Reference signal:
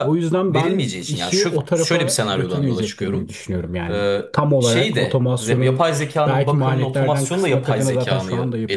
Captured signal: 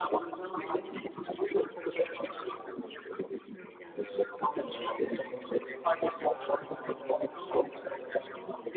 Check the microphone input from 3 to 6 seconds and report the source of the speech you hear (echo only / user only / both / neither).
echo only